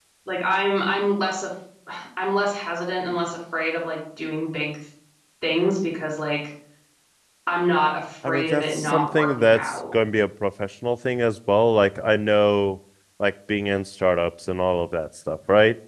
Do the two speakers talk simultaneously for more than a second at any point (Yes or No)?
Yes